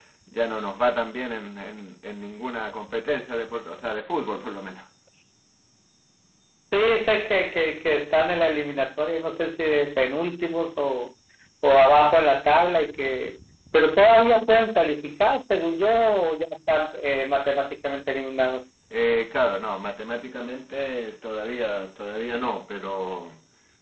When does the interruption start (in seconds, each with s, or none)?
none